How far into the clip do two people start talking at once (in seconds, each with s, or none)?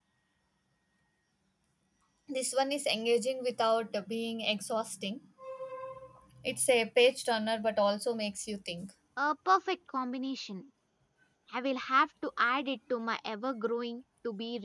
none